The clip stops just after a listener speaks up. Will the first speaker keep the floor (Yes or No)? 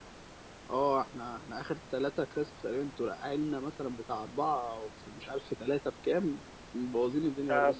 No